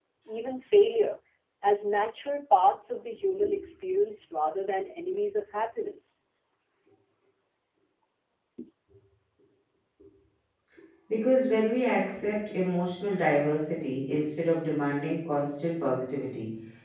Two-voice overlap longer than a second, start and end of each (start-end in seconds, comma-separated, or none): none